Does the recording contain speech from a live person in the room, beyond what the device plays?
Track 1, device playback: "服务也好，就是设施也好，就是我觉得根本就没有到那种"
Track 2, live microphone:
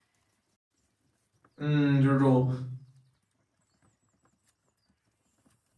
Yes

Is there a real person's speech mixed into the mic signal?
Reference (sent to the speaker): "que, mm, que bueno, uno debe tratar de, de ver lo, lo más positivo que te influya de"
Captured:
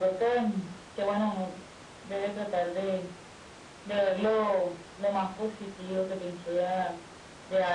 No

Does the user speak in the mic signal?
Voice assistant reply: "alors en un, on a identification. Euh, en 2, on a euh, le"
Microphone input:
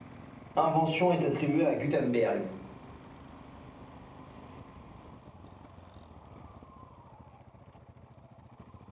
Yes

